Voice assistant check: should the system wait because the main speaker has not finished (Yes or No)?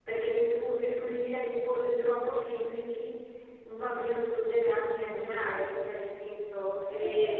Yes